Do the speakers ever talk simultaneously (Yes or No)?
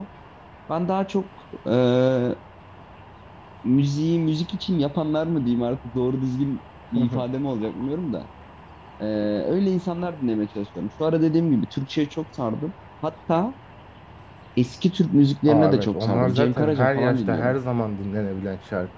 Yes